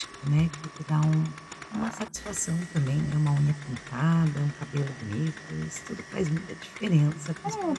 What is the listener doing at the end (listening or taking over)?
taking over